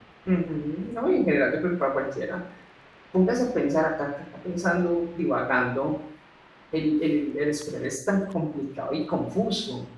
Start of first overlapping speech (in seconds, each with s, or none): none